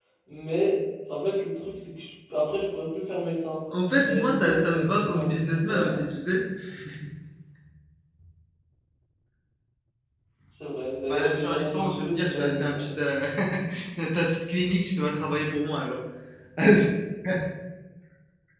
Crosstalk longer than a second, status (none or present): present